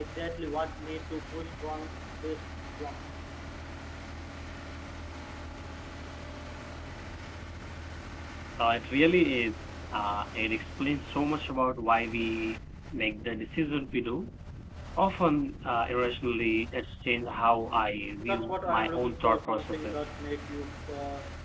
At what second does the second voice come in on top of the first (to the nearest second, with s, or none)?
18 s